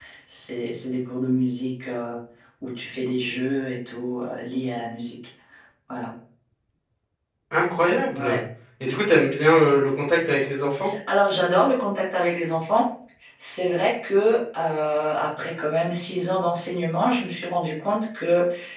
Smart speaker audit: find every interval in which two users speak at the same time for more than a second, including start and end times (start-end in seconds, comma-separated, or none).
none